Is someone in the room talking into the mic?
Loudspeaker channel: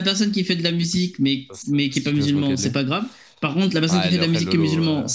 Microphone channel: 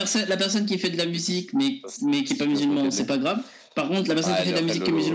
No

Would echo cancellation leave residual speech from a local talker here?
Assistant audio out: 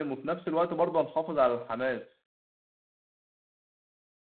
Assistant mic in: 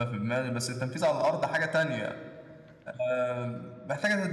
Yes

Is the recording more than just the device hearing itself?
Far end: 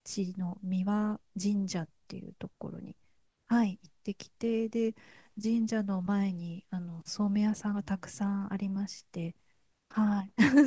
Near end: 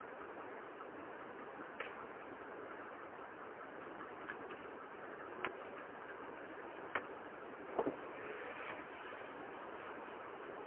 No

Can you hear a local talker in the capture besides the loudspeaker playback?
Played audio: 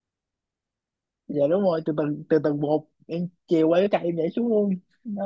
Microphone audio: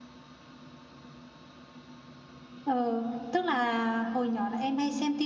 Yes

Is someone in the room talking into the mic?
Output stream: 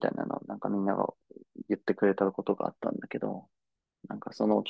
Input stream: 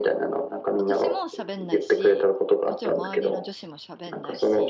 Yes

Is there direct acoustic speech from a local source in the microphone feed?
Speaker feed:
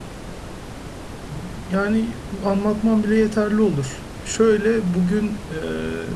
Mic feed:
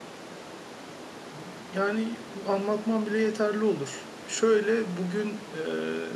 No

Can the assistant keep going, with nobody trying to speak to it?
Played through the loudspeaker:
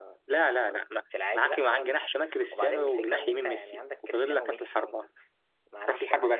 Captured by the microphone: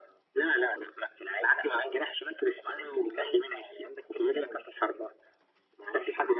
Yes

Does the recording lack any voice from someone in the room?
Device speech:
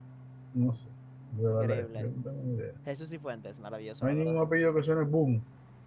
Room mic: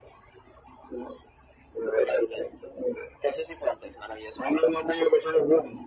Yes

